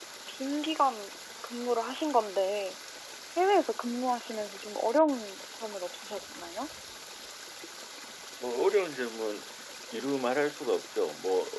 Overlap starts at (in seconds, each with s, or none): none